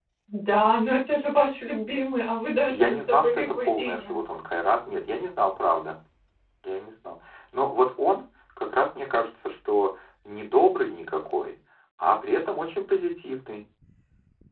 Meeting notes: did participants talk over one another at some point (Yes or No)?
Yes